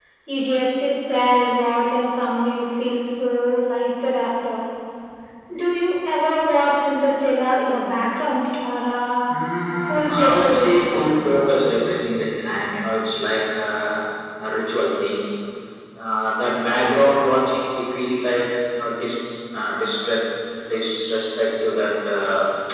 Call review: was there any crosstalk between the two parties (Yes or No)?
Yes